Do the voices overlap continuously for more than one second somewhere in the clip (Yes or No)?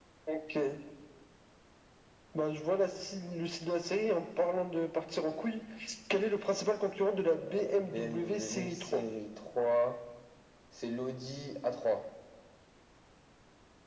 Yes